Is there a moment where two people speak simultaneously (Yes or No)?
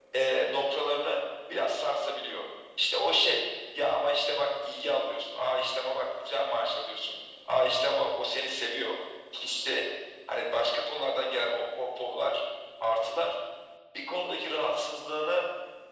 No